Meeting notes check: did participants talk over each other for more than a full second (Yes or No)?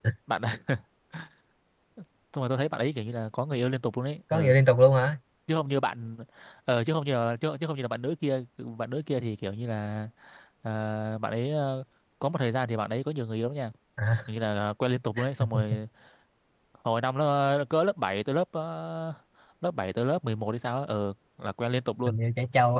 No